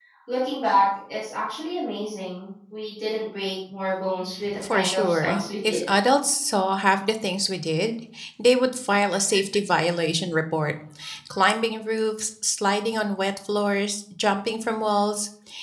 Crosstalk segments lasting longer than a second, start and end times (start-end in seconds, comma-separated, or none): 4.7-5.9